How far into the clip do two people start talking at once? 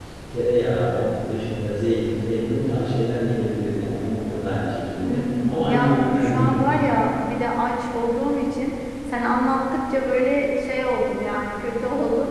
5.0 s

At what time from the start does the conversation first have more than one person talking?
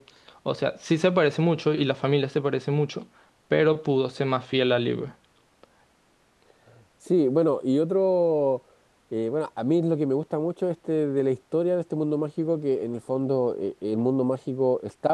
none

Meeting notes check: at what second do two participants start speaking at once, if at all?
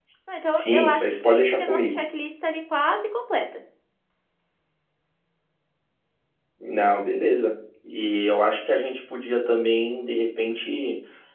0.6 s

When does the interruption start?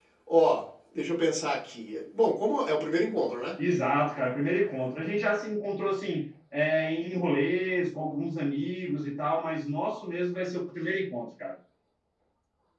none

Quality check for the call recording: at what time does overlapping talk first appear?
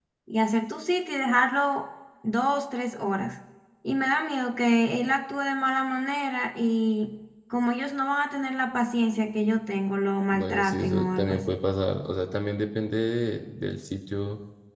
10.3 s

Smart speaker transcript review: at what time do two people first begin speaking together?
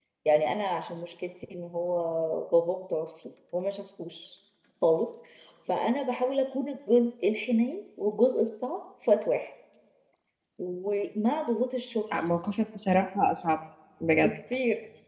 none

